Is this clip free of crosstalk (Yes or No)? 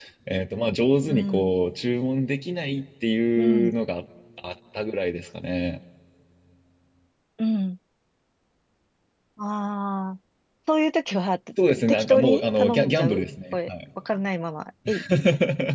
No